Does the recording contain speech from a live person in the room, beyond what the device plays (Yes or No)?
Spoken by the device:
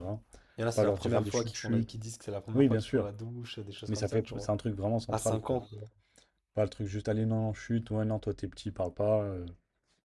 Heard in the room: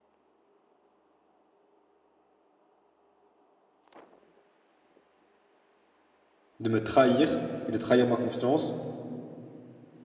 Yes